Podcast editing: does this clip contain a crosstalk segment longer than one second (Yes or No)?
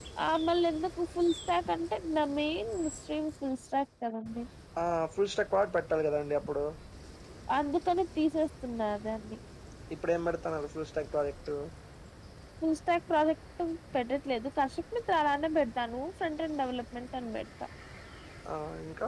No